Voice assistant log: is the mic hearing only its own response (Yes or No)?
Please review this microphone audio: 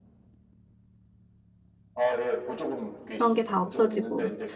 No